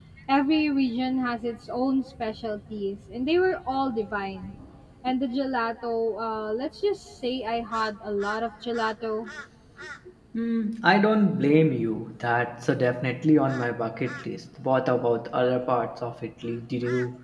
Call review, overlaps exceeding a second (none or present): none